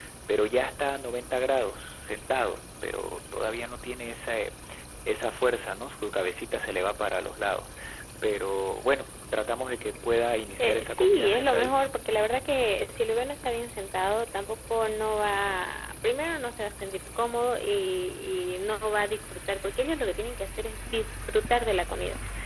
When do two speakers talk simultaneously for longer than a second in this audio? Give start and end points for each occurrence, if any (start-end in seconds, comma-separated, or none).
10.6-11.8